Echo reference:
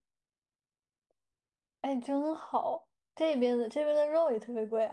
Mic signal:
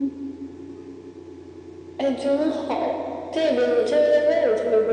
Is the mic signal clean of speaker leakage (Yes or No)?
No